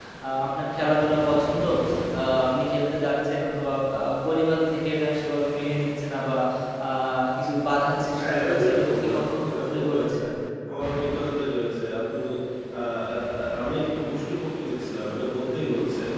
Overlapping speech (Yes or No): Yes